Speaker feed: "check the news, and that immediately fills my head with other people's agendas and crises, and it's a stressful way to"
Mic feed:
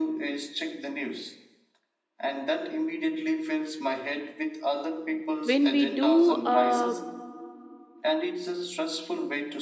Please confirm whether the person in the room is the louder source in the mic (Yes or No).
Yes